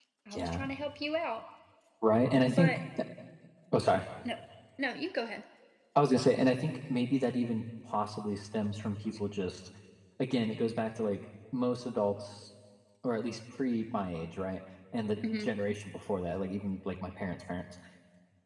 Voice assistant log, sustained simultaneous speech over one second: none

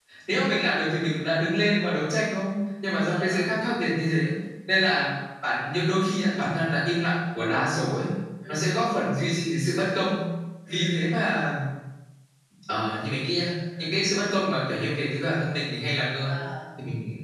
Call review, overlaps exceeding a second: none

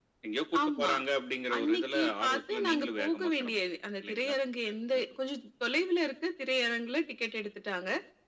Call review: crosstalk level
present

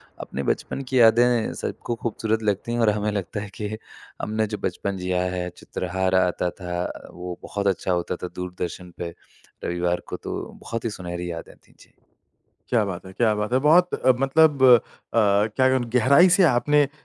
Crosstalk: none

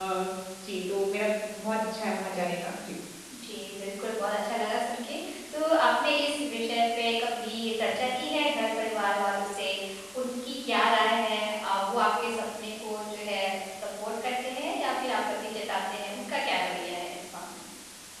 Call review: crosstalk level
none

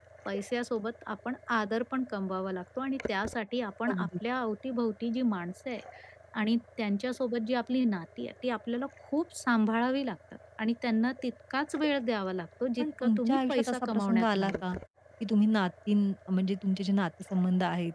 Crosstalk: present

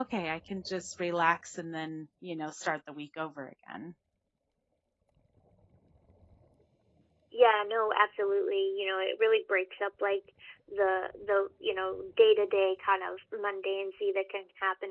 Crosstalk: none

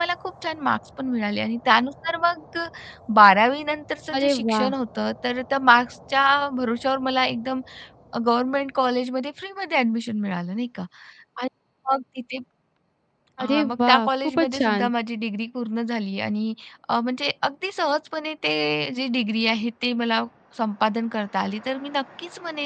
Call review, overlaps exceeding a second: present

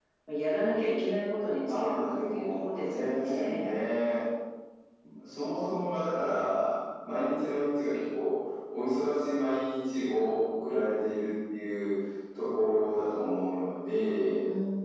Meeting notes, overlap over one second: present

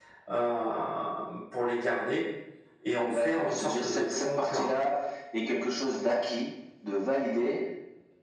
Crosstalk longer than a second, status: present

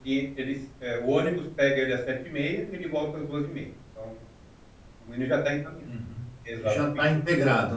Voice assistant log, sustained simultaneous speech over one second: none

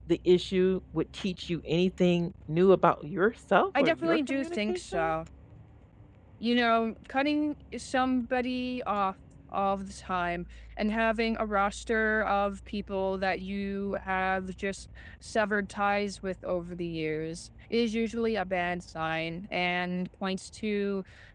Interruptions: present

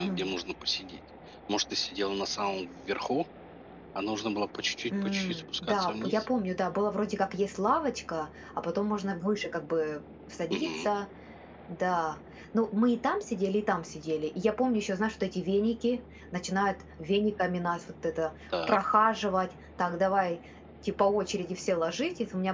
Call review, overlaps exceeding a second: present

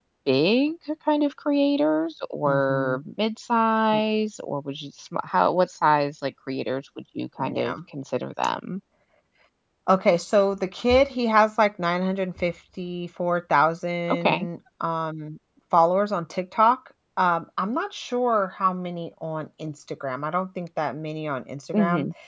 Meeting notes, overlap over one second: none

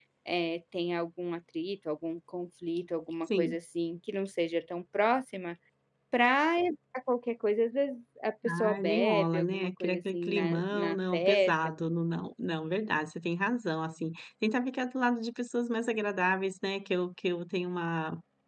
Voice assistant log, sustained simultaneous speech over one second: present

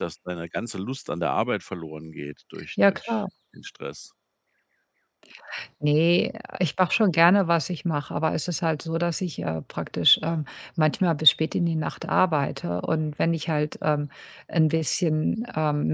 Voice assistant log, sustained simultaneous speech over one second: none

